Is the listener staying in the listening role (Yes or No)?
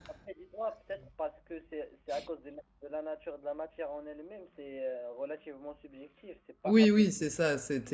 No